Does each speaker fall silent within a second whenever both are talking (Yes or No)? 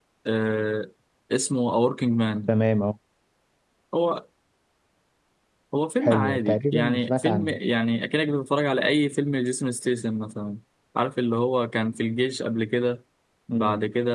No